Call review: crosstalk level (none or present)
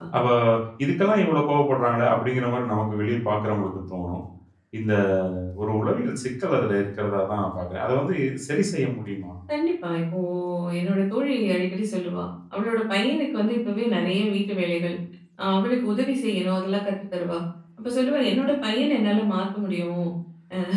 none